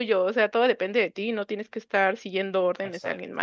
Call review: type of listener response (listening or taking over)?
taking over